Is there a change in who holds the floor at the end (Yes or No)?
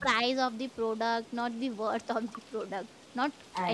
No